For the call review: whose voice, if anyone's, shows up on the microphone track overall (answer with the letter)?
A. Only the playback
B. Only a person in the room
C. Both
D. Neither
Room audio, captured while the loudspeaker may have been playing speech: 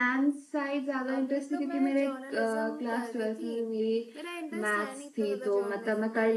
C